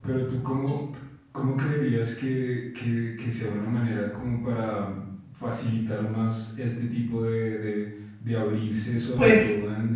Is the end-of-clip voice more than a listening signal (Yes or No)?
No